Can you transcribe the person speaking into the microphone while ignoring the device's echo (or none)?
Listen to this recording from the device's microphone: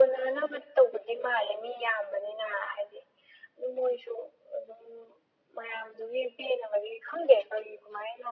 none